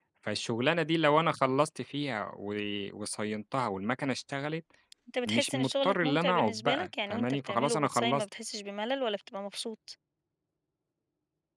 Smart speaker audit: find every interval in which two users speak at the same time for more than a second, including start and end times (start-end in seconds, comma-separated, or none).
5.2-8.2